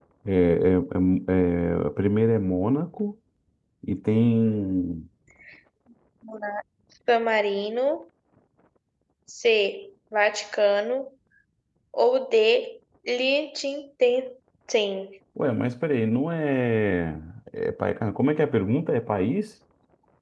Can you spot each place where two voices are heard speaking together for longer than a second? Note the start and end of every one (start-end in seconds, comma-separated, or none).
none